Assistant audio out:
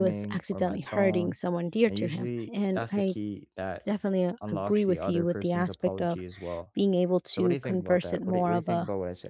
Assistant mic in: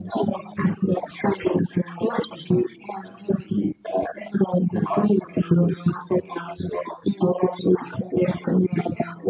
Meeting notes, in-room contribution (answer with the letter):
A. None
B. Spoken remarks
A